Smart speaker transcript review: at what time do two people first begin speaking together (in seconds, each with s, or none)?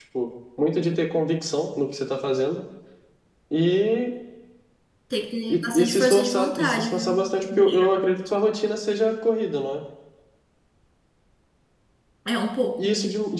5.5 s